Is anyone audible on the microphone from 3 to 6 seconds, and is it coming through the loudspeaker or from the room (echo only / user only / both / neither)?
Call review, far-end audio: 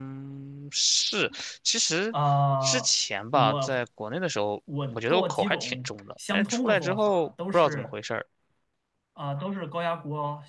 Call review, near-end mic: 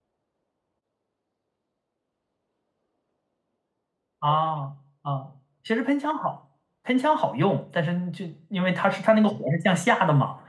user only